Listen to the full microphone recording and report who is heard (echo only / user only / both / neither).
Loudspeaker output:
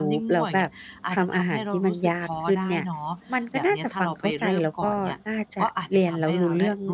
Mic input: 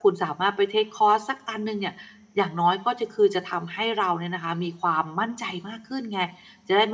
user only